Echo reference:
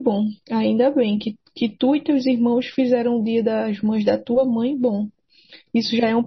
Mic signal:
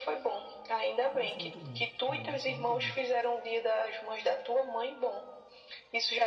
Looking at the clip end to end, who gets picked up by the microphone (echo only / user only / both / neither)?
both